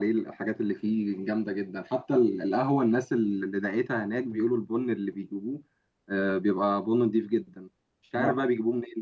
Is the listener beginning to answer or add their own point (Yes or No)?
No